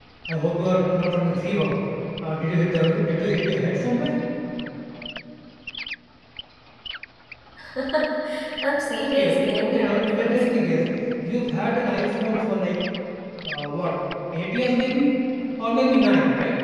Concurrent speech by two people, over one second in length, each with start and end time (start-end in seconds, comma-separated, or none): 9.0-10.5